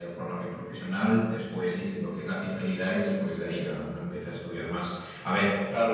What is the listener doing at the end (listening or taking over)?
listening